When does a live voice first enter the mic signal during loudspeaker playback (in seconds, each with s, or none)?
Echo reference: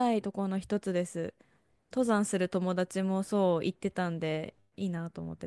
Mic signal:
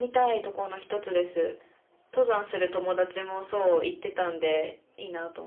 none